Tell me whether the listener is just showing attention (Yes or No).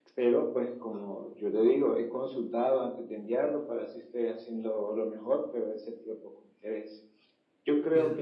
Yes